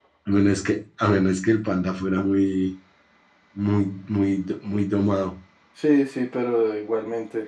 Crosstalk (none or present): none